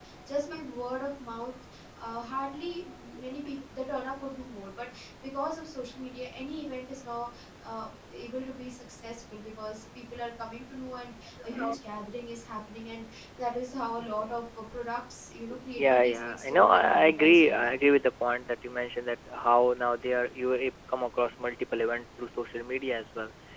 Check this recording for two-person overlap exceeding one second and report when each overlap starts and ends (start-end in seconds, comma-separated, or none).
15.8-17.7